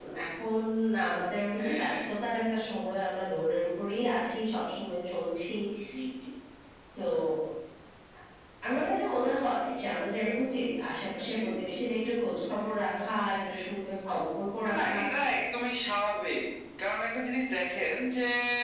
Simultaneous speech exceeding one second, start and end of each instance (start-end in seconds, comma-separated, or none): none